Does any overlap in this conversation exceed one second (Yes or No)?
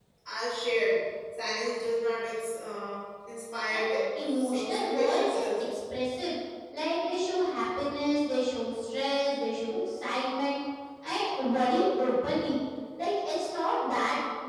Yes